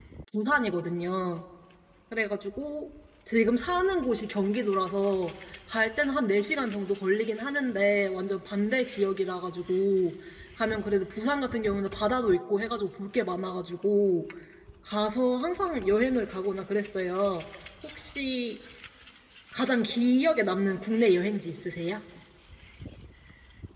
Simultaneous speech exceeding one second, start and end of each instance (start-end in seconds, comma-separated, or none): none